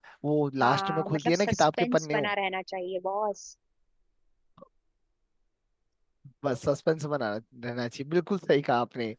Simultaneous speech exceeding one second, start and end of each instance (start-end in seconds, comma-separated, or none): 0.6-2.2